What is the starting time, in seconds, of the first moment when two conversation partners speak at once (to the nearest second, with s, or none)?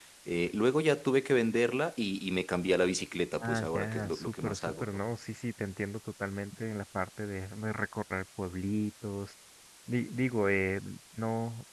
3 s